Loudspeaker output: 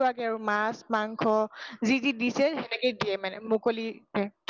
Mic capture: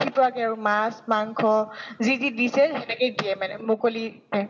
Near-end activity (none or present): none